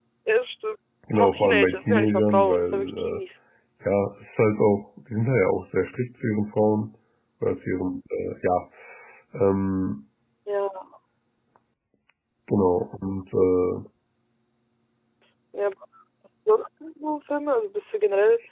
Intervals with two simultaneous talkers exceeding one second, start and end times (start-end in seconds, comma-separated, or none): 1.1-3.2